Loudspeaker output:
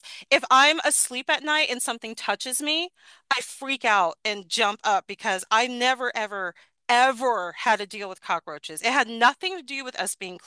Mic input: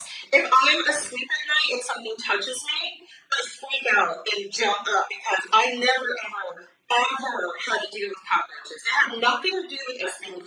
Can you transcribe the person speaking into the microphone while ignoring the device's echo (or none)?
none